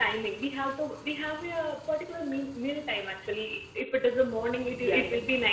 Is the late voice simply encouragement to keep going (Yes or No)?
Yes